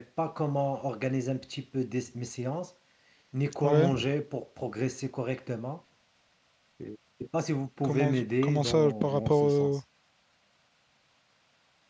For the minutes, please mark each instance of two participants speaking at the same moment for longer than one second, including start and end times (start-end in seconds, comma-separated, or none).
7.8-9.8